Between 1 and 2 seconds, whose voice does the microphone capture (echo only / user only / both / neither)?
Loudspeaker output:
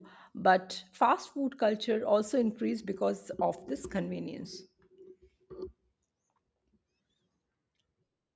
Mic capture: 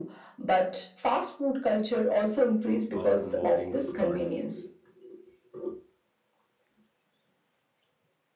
echo only